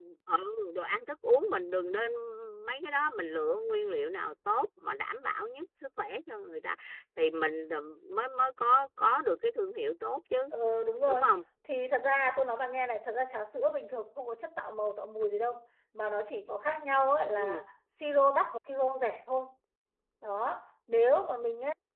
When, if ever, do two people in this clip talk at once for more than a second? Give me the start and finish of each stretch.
none

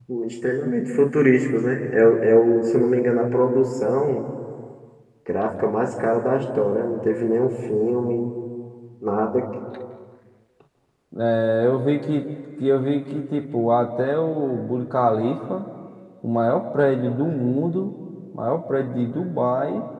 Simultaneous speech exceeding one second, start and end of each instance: none

